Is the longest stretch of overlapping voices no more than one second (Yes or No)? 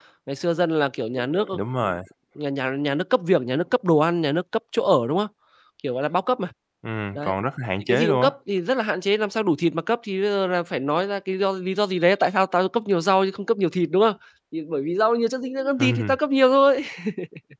Yes